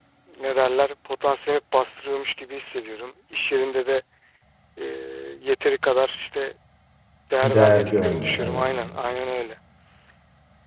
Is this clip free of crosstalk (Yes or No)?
No